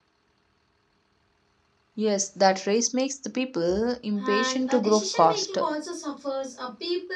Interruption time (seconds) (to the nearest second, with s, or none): 4 s